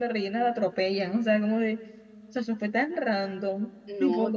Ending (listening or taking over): listening